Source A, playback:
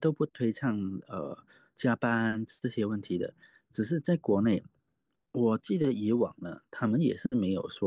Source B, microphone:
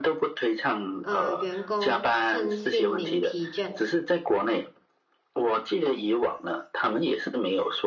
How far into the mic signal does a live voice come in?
1.0 s

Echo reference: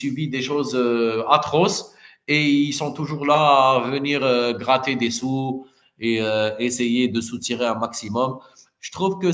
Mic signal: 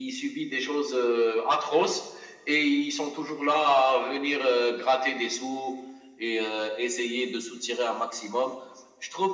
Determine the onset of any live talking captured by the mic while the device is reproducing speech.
none

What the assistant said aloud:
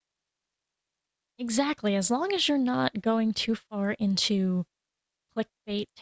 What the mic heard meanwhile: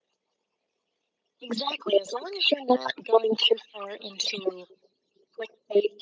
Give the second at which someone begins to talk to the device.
none

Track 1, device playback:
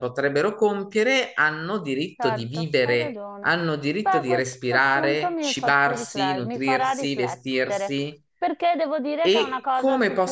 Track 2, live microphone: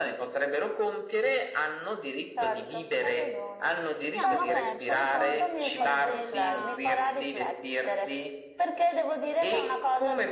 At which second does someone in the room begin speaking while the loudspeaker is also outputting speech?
4.1 s

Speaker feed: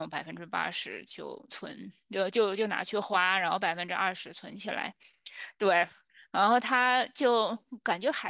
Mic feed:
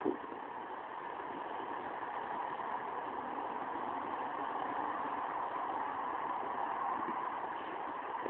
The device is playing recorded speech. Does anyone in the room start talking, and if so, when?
none

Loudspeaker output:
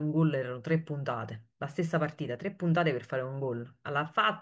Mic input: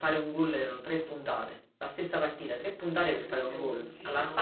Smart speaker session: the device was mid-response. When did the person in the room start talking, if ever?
3.0 s

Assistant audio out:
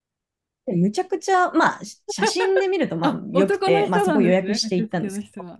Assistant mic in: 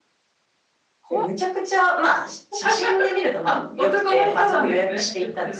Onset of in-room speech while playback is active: 1.0 s

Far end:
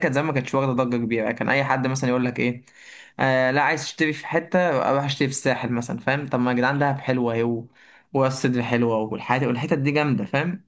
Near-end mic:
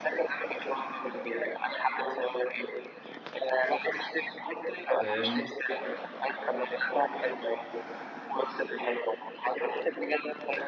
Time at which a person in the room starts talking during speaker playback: 5.0 s

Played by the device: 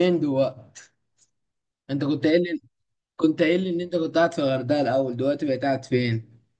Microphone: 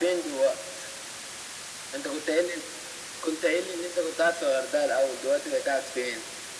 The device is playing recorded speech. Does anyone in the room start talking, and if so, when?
none

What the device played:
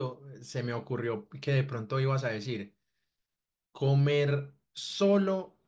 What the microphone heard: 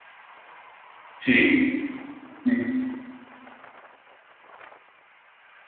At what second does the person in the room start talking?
1.2 s

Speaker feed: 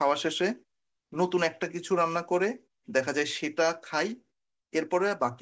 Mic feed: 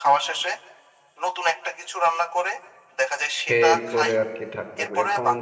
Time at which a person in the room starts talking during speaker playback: 3.4 s

